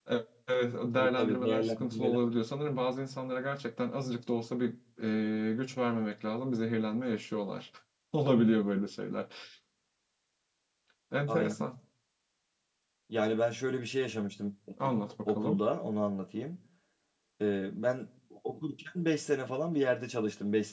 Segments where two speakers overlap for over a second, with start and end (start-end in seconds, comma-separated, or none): 1.0-2.2